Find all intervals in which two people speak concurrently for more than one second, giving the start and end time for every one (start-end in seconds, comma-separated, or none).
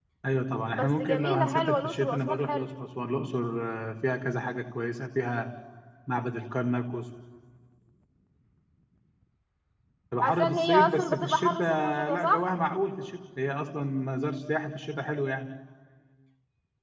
0.7-2.6, 10.2-12.4